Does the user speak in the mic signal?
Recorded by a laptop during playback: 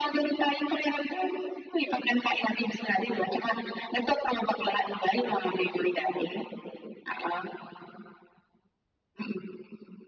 No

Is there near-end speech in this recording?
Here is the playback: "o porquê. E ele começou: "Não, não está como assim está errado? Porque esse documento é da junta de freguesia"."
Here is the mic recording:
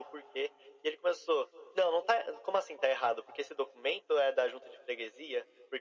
No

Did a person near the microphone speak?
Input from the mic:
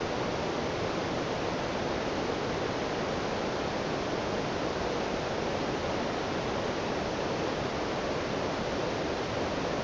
No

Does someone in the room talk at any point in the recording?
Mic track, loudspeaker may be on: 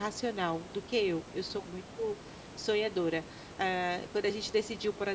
Yes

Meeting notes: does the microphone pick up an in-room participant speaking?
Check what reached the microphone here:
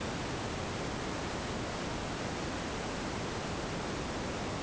No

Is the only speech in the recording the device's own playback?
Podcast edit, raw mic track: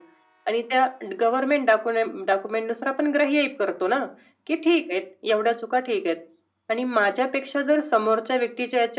Yes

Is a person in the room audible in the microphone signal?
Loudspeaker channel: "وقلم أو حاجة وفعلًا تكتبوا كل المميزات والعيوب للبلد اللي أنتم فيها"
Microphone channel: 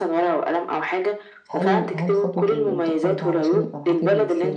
Yes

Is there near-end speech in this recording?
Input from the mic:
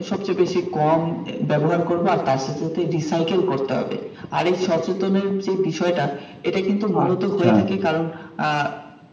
Yes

